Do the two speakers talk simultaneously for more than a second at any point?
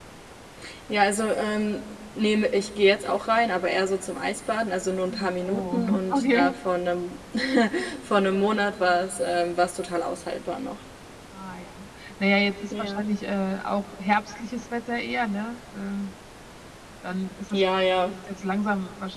Yes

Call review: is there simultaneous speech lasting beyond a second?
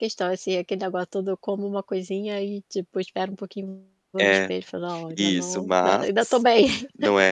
Yes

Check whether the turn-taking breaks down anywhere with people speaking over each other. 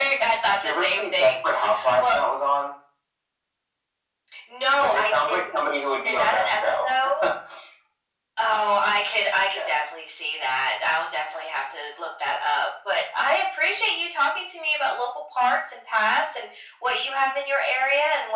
Yes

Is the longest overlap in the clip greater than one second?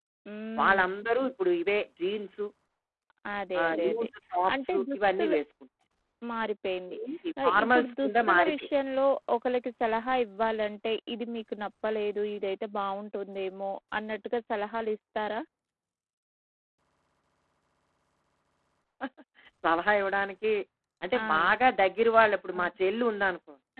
Yes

